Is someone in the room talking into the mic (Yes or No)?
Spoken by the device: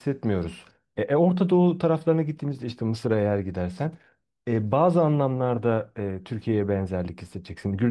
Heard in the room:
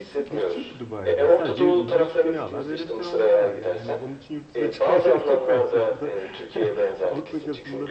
Yes